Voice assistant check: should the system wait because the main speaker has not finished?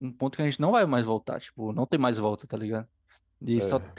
Yes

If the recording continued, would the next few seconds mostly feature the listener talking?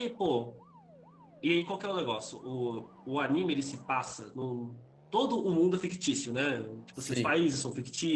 No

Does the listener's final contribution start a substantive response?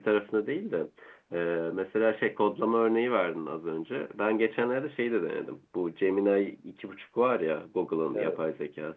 No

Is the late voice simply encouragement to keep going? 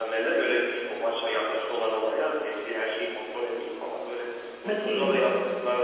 Yes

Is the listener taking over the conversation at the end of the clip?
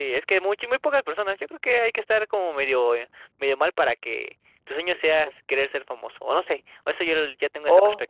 Yes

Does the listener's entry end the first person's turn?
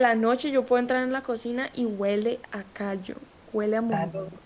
Yes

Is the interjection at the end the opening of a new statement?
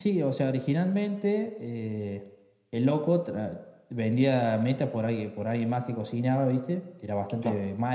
No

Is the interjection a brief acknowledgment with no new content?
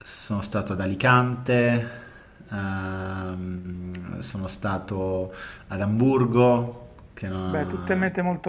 No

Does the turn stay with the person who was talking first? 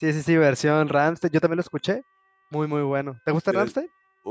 No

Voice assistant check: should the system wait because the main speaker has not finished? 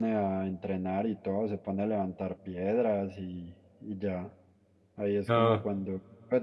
Yes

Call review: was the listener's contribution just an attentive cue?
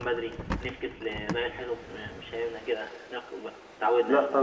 No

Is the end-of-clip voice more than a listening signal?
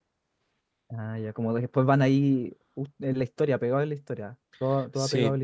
Yes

